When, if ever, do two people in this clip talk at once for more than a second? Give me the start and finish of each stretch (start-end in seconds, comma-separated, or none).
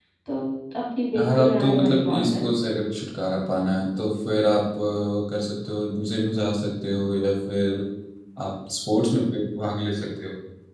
1.2-2.4